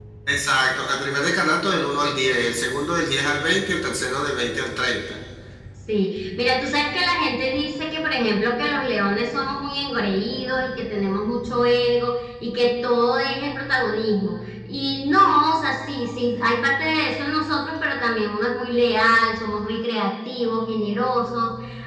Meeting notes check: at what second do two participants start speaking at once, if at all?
none

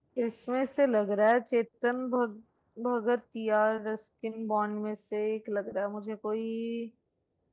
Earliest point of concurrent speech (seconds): none

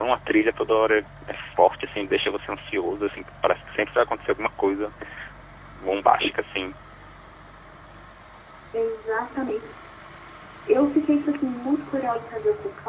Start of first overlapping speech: none

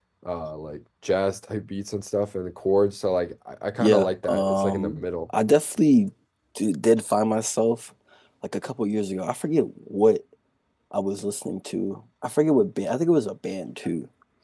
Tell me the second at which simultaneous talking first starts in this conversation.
3.8 s

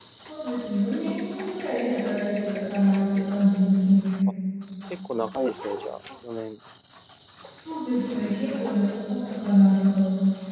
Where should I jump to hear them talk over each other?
none

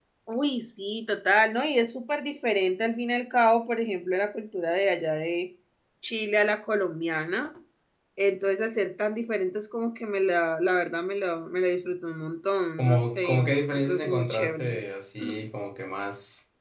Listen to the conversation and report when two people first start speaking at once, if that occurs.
12.8 s

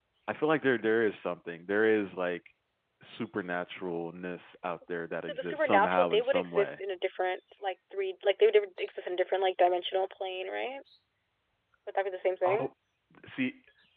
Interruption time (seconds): 5.3 s

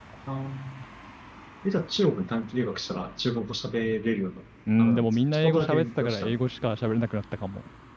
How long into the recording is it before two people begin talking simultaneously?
4.8 s

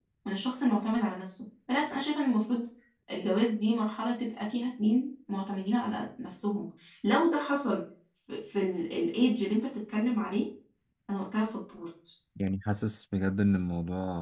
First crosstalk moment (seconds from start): none

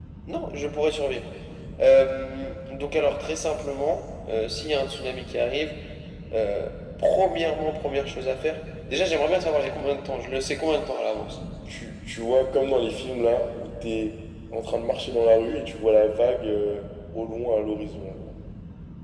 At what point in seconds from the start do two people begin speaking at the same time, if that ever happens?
none

